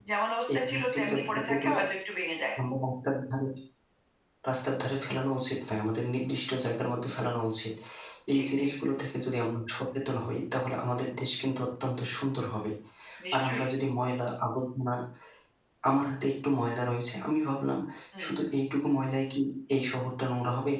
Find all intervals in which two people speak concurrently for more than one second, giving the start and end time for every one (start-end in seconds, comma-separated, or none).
0.5-1.7